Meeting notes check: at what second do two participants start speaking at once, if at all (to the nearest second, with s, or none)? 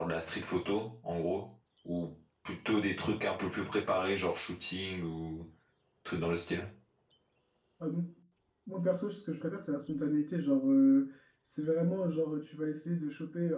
none